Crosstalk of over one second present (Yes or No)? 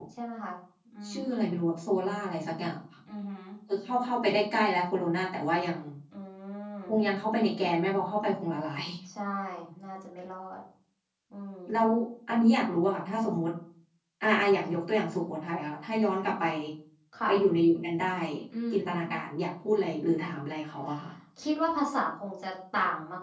No